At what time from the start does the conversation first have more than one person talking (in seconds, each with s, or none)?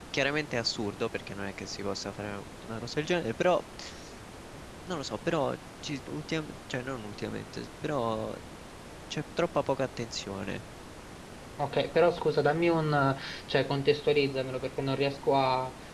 none